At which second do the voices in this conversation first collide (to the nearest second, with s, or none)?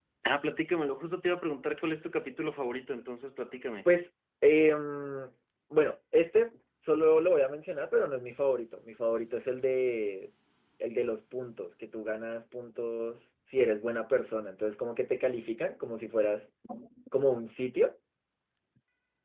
none